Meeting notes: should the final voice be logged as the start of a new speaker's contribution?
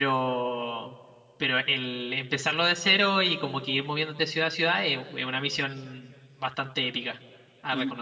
Yes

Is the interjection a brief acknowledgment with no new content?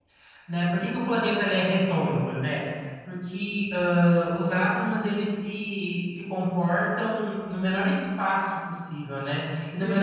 Yes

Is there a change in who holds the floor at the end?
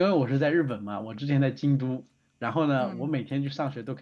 No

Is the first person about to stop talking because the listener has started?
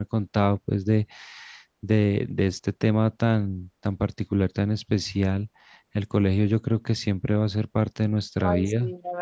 Yes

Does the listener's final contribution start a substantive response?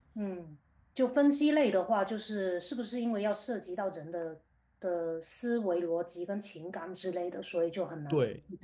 Yes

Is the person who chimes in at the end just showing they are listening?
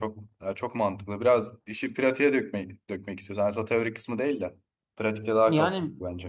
No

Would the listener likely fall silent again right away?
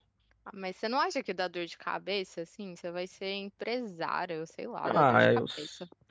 No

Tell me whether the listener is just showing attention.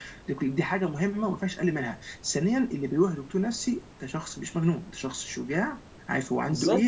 Yes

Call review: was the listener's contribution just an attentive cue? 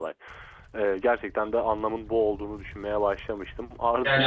No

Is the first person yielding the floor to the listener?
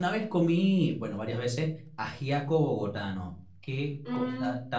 No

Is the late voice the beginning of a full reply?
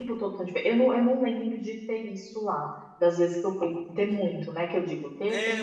Yes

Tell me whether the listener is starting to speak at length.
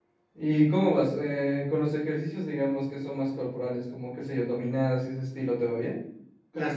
Yes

